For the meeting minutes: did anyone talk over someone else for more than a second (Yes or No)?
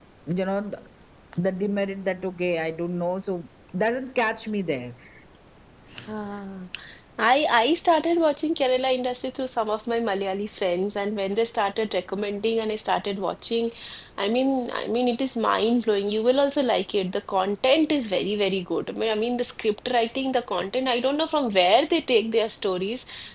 No